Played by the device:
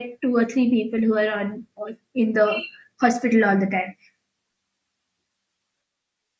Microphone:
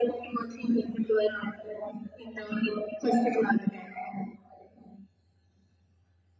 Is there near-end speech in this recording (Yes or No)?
No